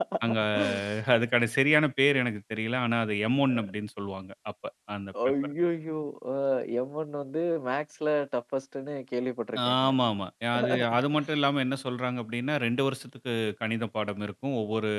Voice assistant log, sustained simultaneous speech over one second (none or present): none